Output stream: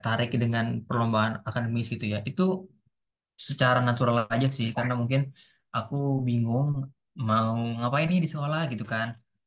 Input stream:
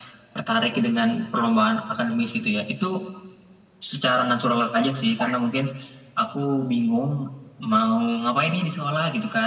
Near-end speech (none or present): none